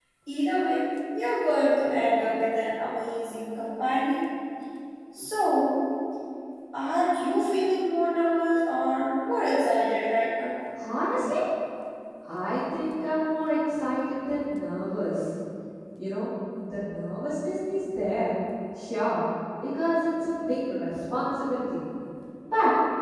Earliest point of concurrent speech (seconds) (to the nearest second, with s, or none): none